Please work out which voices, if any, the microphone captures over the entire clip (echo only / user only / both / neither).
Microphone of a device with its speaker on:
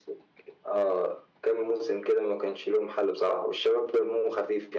echo only